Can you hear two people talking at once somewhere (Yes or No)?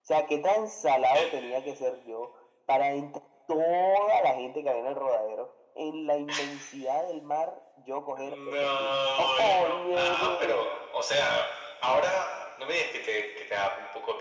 Yes